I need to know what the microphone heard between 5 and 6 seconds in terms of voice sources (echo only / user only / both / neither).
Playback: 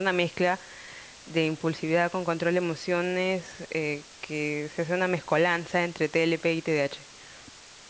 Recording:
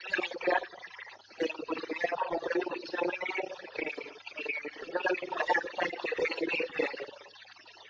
echo only